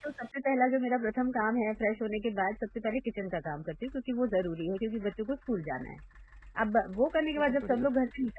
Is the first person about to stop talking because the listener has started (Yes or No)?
No